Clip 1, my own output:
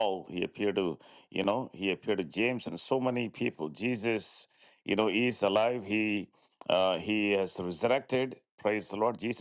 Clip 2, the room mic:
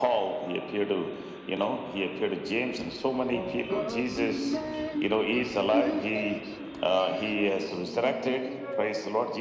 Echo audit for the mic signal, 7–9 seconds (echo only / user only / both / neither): both